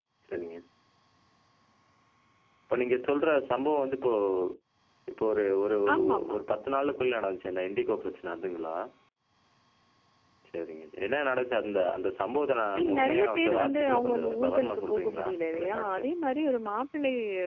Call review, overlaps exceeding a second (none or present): present